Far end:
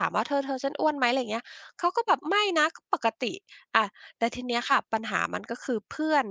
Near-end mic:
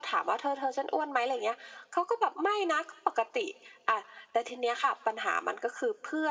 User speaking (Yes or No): No